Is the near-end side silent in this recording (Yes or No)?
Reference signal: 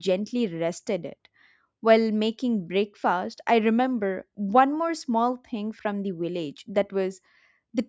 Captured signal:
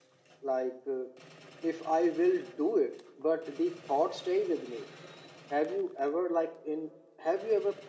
No